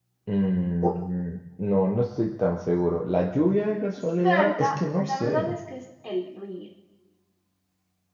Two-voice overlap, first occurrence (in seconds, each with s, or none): 4.2 s